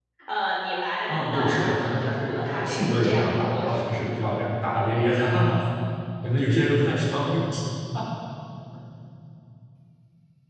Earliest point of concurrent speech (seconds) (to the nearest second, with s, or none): 1 s